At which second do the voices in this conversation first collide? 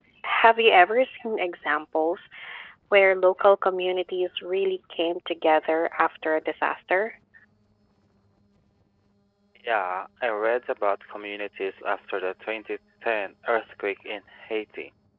none

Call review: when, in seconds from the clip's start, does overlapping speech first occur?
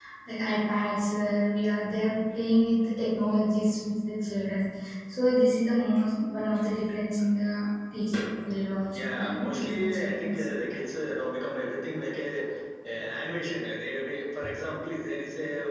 9 s

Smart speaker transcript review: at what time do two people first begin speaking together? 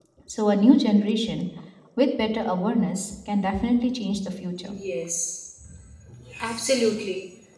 none

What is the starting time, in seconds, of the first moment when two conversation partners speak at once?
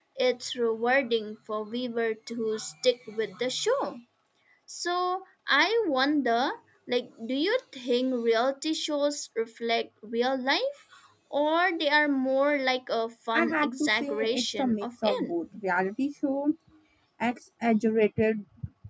13 s

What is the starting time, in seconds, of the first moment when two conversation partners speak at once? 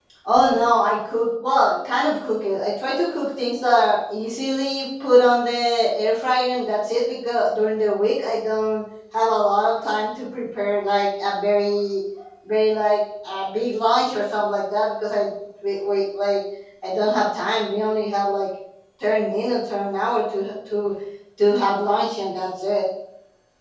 none

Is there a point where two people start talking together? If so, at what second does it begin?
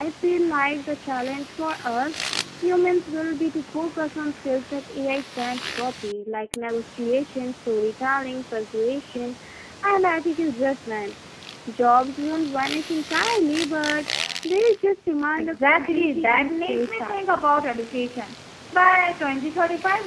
15 s

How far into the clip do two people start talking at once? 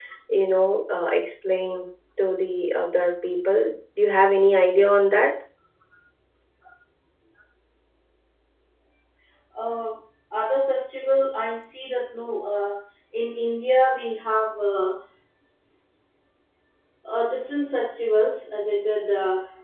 none

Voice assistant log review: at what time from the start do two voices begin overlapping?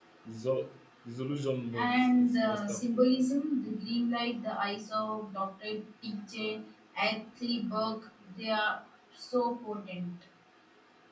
2 s

